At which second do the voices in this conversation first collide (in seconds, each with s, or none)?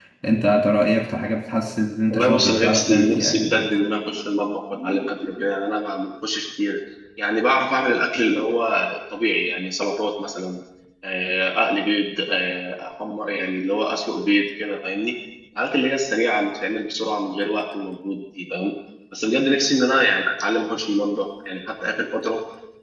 2.1 s